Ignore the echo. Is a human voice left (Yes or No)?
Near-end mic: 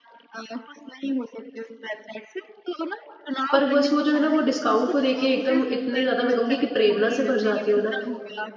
Yes